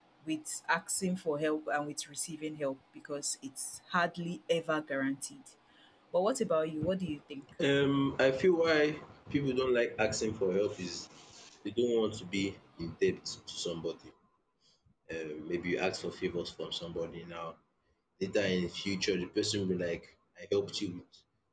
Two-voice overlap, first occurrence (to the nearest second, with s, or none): none